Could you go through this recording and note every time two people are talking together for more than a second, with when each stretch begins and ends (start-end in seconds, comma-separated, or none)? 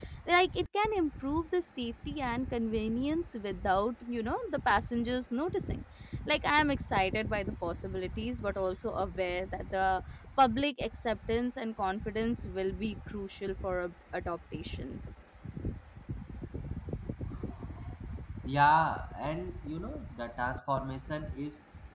none